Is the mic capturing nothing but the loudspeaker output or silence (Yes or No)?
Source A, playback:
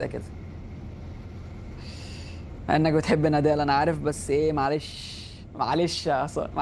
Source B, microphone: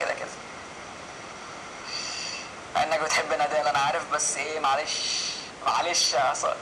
Yes